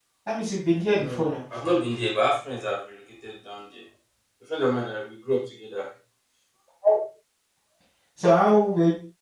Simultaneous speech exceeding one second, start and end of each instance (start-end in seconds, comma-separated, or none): none